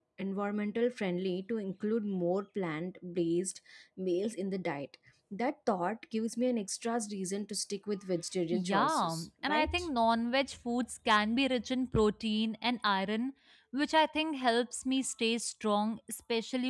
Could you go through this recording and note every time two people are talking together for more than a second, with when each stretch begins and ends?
8.5-9.9

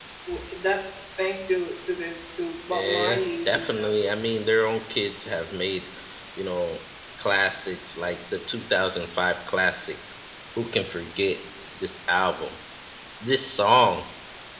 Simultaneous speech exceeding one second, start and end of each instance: 2.7-4.0

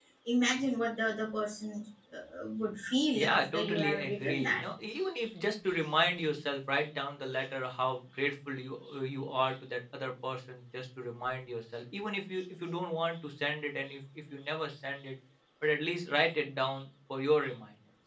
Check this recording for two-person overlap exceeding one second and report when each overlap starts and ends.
3.1-4.6

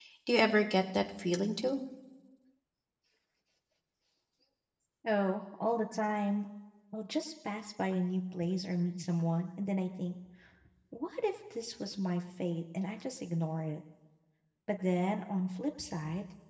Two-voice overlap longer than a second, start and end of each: none

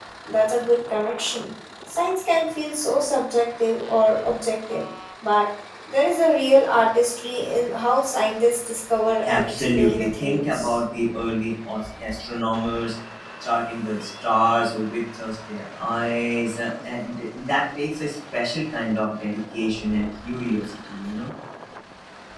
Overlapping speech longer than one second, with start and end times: 9.2-10.8

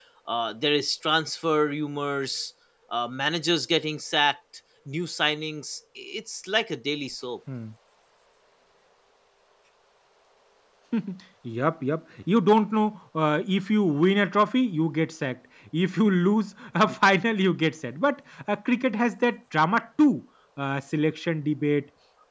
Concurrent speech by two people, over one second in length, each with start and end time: none

